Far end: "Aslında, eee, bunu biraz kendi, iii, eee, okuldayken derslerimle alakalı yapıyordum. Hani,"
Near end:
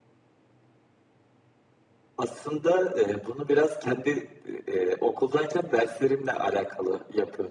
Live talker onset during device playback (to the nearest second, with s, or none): none